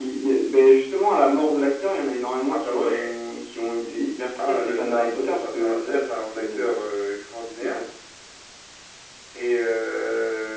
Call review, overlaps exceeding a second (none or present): present